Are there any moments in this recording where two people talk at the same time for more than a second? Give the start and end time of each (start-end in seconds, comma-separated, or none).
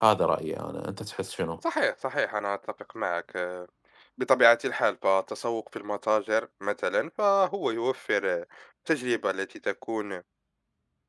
none